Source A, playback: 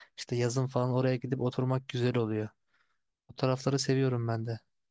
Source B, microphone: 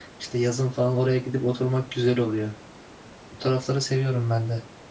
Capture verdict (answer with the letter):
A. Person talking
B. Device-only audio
B